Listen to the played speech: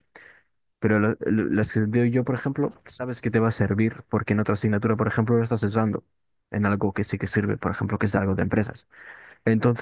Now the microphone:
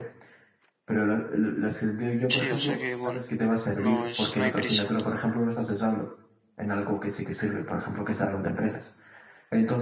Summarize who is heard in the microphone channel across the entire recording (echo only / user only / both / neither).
both